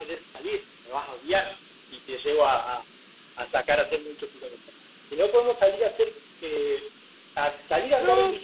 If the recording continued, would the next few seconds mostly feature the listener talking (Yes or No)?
Yes